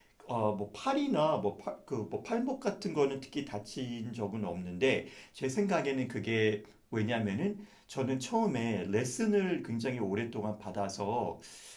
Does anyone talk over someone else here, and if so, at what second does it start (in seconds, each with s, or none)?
none